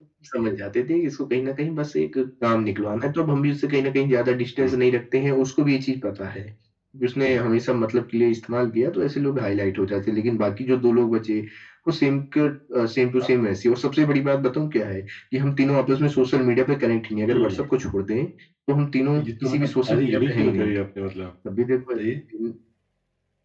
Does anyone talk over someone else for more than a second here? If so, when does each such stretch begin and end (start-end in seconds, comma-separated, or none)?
19.1-20.7